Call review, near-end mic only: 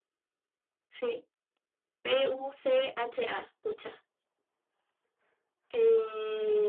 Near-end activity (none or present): none